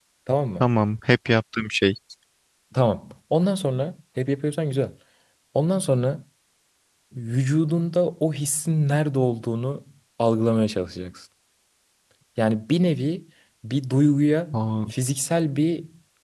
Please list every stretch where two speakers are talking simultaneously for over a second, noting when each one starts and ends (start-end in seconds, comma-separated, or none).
none